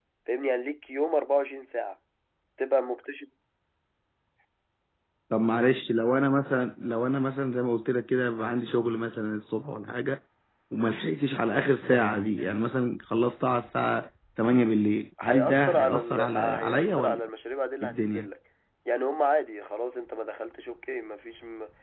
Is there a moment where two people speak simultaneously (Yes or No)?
Yes